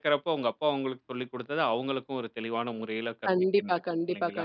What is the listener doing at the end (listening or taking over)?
taking over